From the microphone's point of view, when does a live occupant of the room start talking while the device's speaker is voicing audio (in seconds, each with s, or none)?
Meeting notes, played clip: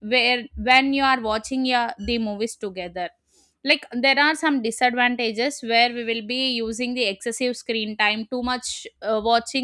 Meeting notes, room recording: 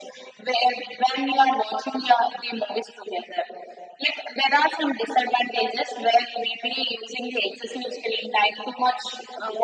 none